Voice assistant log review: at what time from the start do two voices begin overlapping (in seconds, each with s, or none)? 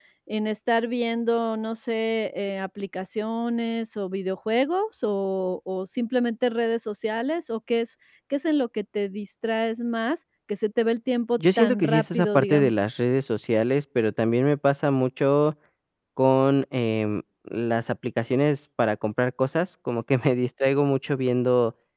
11.4 s